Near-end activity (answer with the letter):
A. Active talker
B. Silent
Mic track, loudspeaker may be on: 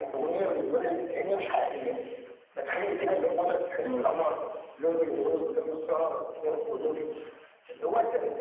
A